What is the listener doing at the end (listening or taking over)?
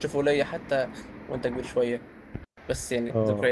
listening